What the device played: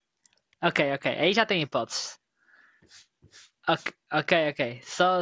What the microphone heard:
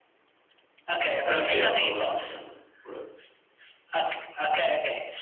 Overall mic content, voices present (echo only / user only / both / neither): both